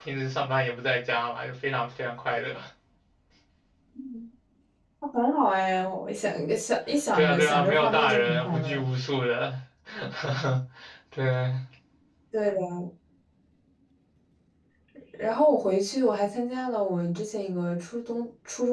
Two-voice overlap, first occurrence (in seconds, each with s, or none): 7.1 s